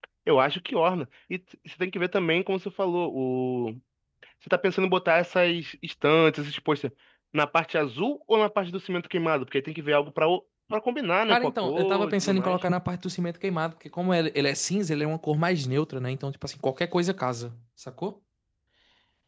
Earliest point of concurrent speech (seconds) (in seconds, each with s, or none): 11.3 s